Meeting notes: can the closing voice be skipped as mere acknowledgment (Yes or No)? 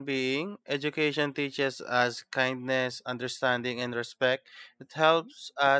Yes